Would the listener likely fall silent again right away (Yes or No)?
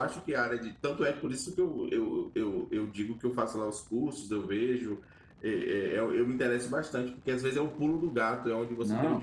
No